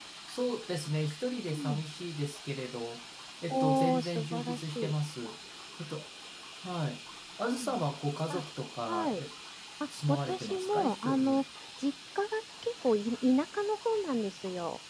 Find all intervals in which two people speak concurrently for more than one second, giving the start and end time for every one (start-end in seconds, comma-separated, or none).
3.5-4.9, 10.1-11.4